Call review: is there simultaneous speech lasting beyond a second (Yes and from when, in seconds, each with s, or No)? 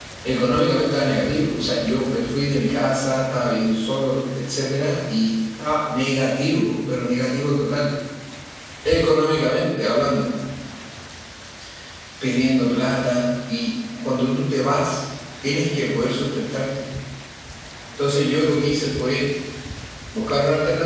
No